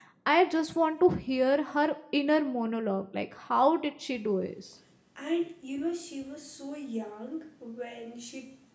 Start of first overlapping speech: none

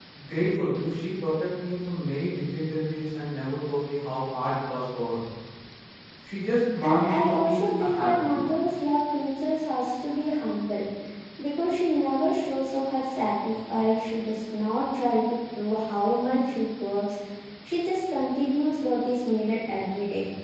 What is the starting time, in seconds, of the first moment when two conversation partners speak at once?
6.9 s

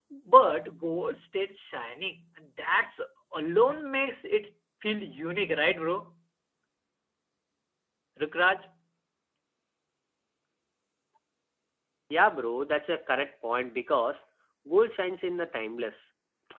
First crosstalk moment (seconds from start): none

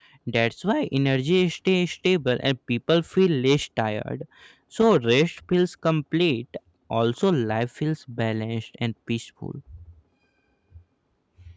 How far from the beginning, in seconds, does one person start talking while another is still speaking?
none

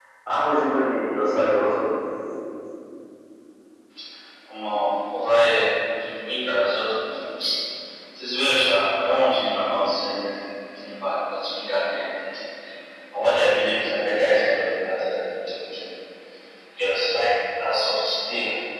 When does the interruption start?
none

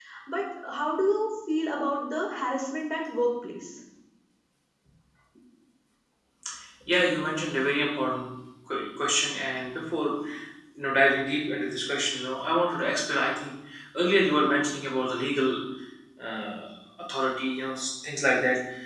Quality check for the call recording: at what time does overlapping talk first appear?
none

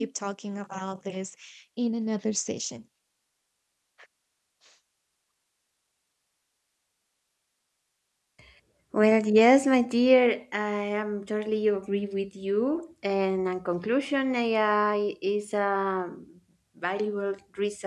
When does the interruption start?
none

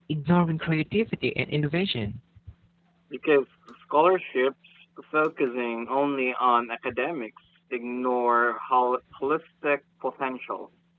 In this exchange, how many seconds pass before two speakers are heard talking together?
none

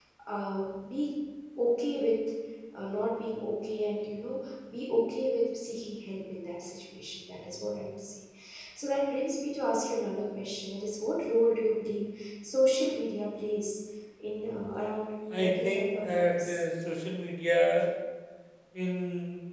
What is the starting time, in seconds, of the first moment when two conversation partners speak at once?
15.3 s

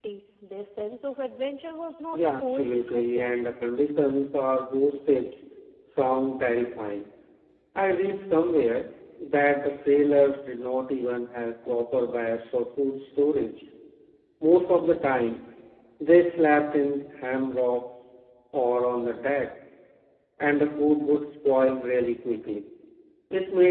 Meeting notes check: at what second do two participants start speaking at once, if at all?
2.1 s

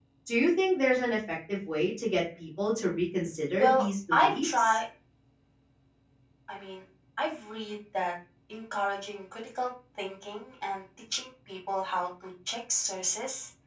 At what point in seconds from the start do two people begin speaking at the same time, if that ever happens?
3.6 s

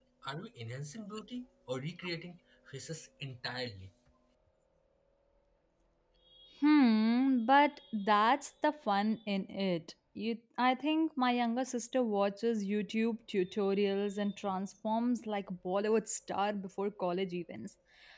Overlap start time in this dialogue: none

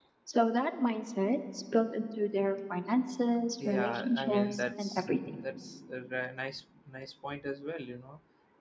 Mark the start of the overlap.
3.6 s

